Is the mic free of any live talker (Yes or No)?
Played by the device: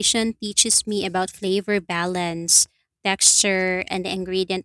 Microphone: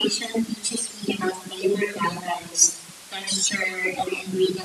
Yes